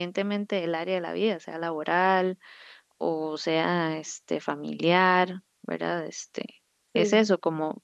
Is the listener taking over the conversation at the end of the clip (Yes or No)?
No